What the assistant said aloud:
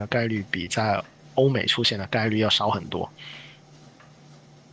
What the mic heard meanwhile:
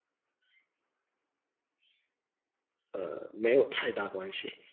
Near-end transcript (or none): 呃没有太大关系。